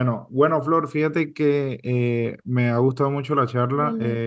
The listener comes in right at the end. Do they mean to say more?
No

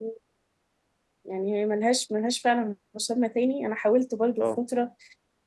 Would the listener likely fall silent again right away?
Yes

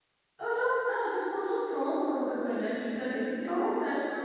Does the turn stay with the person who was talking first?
Yes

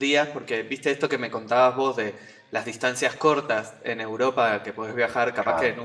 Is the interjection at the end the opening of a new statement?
No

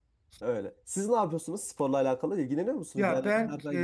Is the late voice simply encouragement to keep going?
No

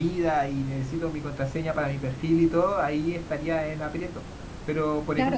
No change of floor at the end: No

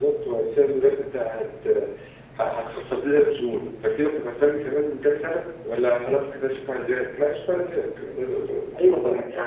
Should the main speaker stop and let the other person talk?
Yes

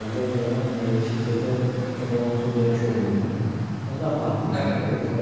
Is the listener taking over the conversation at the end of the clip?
Yes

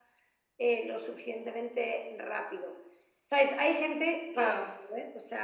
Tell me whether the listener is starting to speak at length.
No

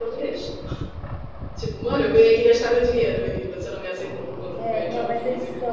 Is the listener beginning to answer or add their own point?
Yes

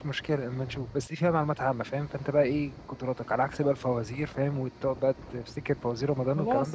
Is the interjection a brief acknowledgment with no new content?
No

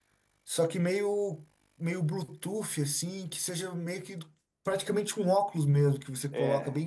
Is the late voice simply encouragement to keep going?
No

